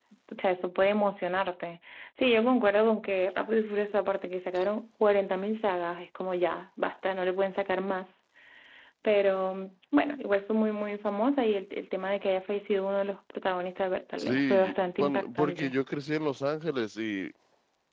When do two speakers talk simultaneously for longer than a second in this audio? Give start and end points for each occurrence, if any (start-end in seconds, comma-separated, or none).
14.2-15.8